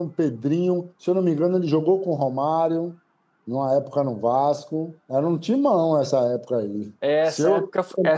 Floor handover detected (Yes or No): Yes